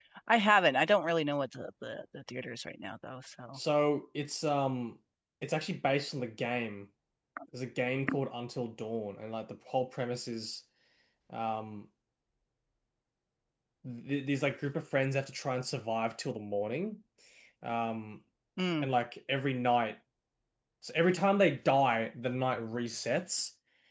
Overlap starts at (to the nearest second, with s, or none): none